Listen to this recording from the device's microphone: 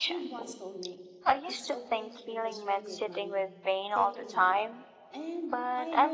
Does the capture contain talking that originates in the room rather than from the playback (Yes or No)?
Yes